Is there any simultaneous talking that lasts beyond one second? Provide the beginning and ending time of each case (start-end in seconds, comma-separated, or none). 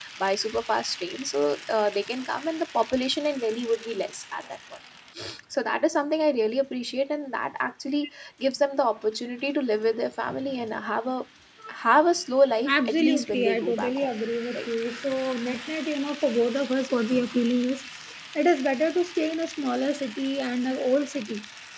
12.7-14.1